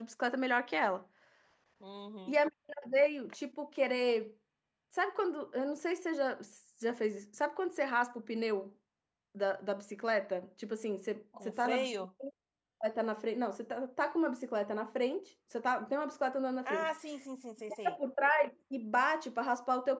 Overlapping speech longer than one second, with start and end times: none

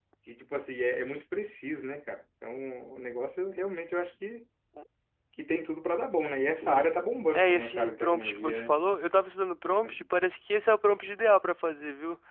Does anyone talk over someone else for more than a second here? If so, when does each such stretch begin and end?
7.3-8.8

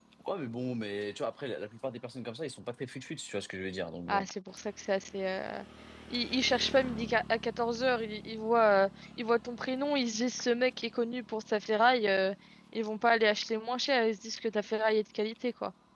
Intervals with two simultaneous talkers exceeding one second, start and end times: none

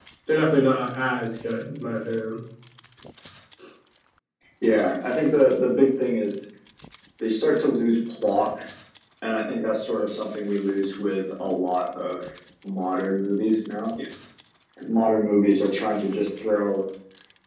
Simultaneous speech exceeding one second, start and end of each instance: none

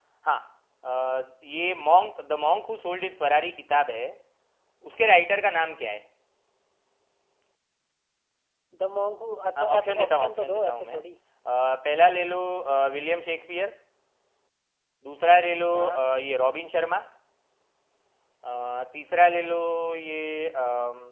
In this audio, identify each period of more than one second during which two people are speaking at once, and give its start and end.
9.6-11.0

